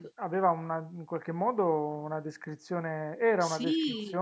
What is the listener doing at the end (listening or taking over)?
listening